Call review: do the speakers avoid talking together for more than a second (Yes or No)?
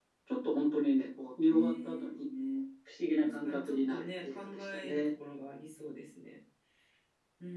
No